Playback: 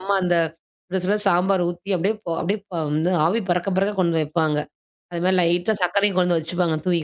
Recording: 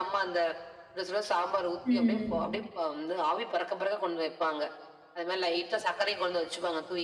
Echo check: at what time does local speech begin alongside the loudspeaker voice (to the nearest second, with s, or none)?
2 s